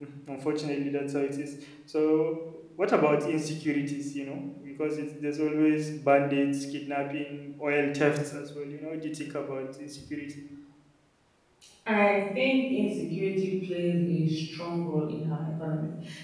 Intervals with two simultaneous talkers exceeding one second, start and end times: none

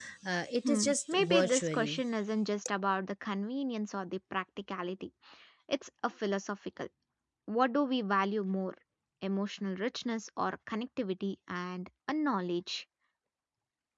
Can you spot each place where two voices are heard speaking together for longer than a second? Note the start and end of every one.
0.6-2.0

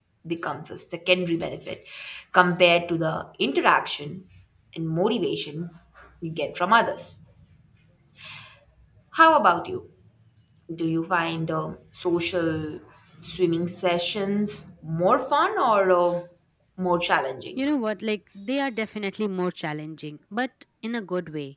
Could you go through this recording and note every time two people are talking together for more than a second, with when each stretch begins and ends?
none

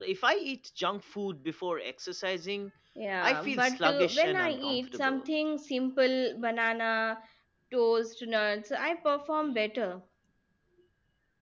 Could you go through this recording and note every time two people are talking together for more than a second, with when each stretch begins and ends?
3.2-5.2

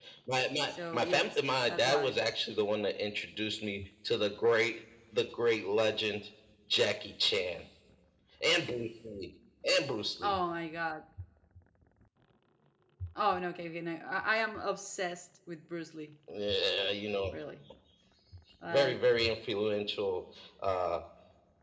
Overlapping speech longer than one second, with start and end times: 0.7-2.2

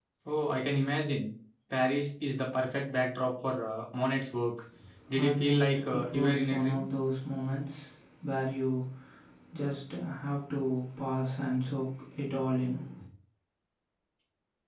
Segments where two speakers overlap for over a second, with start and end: 5.2-6.9

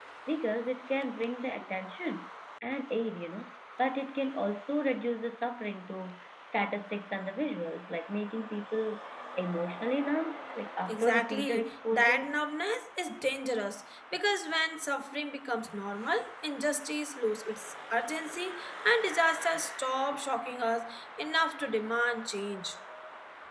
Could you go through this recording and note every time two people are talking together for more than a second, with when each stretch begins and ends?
10.9-12.3

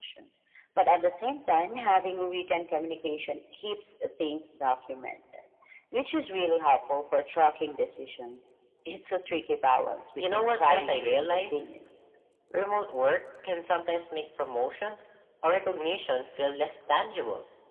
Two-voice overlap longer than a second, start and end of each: 10.2-11.6

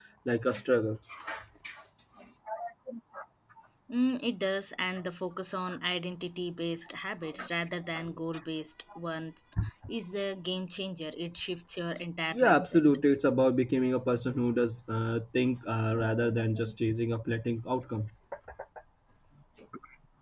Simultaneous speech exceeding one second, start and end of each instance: none

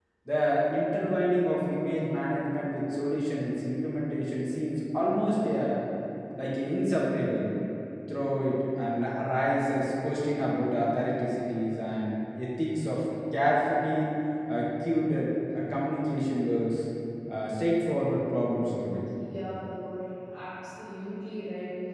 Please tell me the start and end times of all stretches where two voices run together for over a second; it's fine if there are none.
none

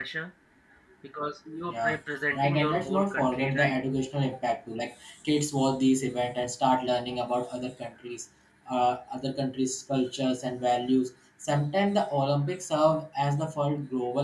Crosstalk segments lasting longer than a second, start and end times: 2.4-3.7

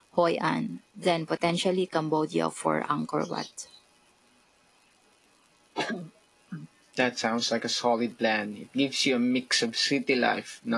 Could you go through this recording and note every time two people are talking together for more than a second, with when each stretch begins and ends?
none

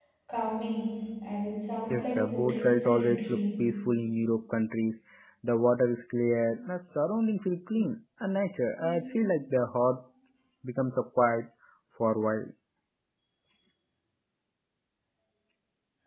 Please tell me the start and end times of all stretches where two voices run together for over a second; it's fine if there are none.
1.9-3.4

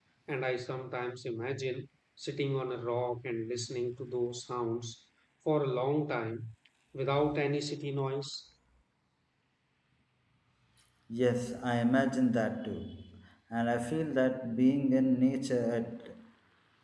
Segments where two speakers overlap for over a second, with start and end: none

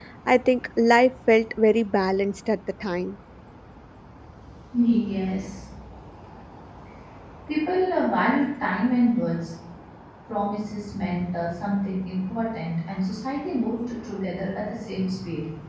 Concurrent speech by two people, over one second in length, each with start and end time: none

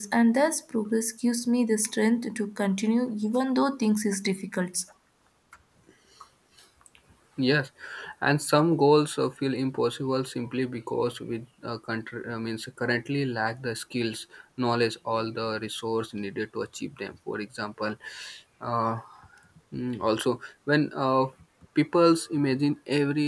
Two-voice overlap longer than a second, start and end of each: none

